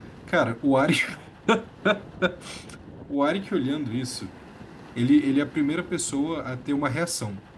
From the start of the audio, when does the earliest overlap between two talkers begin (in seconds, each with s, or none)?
none